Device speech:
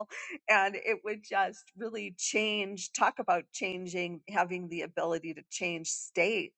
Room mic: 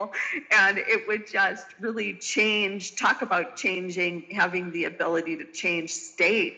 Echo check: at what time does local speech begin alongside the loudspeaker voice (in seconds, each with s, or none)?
none